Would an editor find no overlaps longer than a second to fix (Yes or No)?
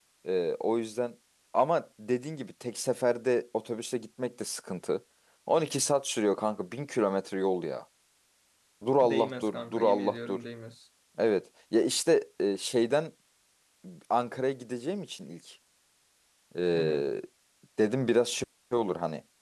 No